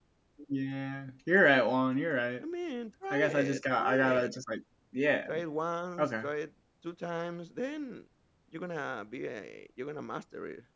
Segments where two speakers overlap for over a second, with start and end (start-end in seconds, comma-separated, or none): 3.1-4.3